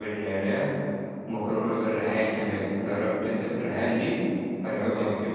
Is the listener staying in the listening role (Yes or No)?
No